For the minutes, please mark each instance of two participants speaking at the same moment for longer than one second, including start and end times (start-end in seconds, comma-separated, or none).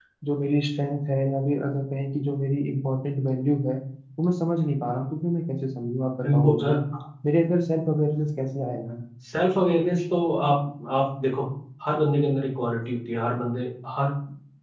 none